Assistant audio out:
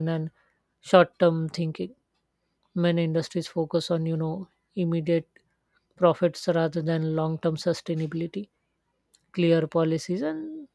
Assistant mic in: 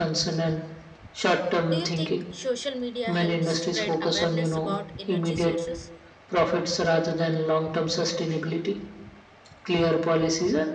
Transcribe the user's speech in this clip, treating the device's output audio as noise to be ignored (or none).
Do you think social media helps spread awareness about energy sources?